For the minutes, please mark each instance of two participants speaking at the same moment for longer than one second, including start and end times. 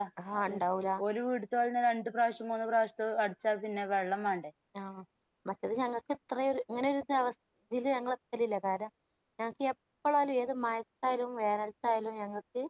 none

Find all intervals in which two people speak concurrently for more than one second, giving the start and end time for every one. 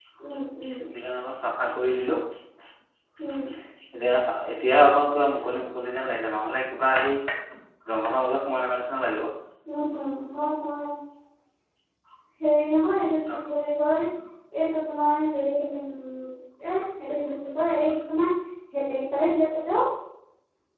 none

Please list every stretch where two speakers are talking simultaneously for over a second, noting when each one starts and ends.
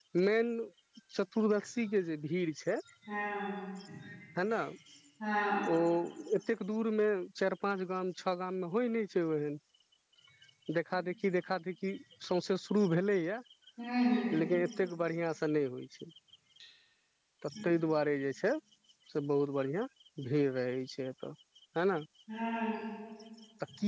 none

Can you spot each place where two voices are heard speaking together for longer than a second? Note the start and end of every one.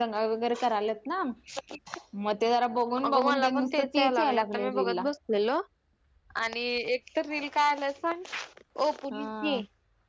3.0-5.1

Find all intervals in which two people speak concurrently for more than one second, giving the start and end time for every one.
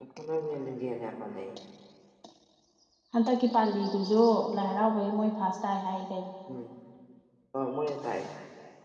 none

